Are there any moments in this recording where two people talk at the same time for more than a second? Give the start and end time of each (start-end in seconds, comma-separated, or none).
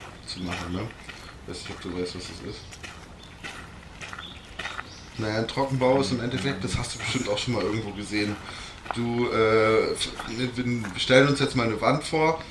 5.9-7.4